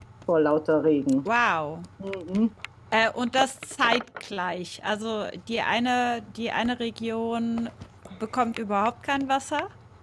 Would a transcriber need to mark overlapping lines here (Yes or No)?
No